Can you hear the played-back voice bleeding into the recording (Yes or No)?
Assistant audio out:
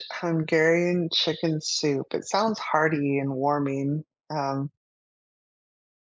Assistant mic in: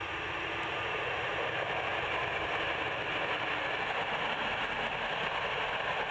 No